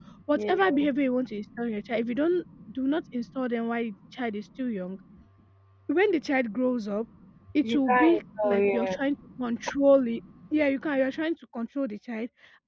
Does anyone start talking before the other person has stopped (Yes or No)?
Yes